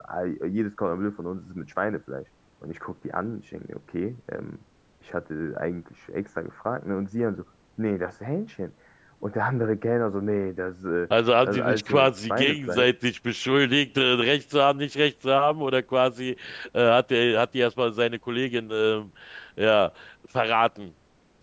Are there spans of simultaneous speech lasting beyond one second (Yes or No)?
Yes